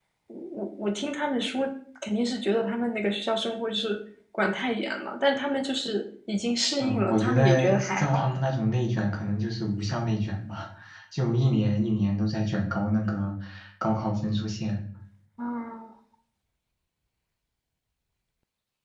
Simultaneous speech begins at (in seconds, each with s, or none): 6.8 s